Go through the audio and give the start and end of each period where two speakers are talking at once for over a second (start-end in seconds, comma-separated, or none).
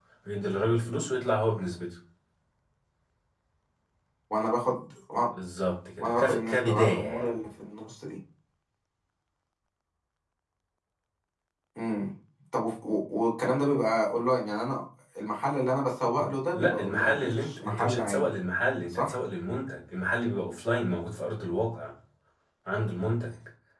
6.0-7.3, 16.5-18.3